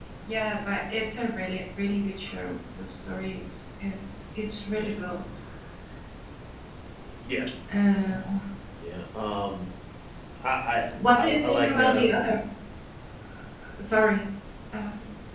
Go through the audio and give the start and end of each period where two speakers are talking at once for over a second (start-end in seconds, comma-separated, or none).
10.9-12.3